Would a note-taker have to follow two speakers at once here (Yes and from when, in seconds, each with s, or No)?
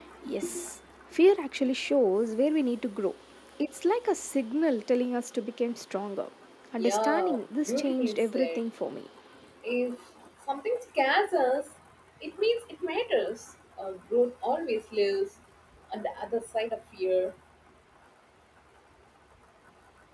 Yes, from 6.8 s